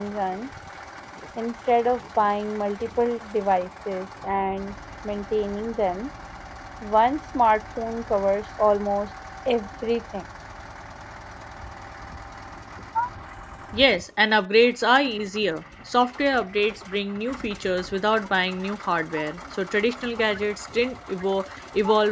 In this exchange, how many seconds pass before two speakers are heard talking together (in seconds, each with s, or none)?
none